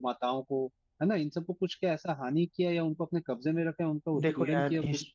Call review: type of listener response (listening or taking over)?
taking over